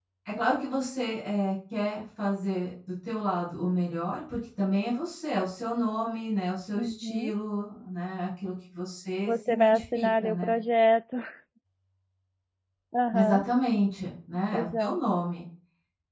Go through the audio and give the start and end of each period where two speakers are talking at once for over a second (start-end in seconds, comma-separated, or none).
9.3-10.5